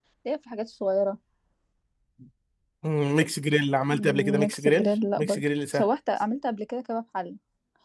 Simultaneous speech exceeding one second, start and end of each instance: 3.9-5.9

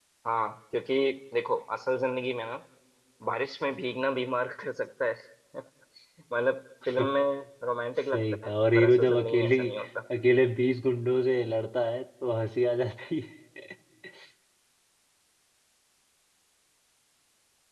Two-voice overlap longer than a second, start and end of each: 8.1-9.6

